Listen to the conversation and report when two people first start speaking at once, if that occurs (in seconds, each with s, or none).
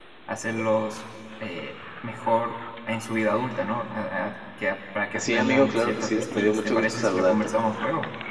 5.1 s